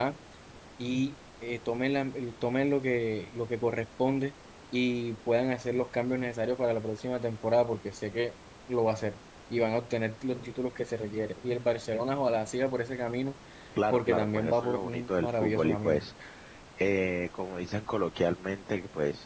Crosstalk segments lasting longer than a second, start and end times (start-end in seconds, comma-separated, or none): 13.9-16.1